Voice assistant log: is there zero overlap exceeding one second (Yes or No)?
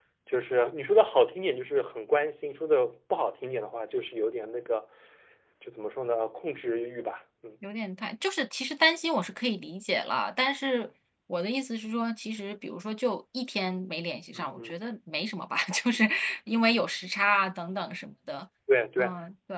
Yes